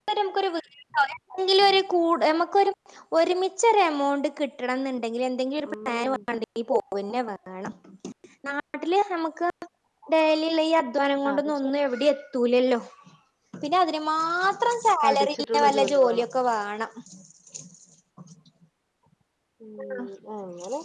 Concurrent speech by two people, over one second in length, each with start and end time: 15.0-16.2

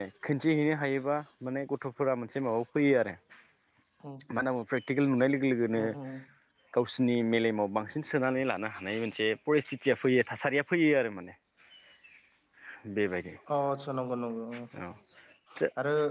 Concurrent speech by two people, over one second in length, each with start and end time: none

